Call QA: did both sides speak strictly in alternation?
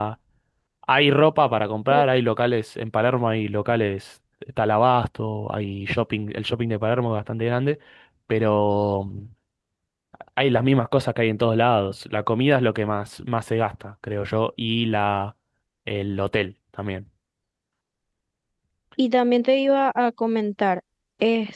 Yes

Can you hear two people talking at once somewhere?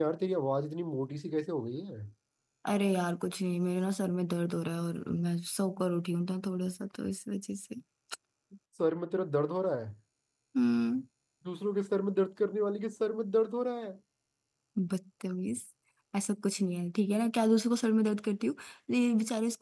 No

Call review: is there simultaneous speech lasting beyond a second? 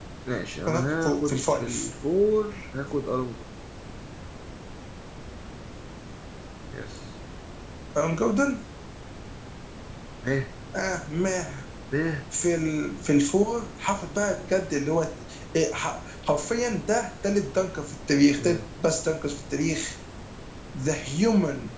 Yes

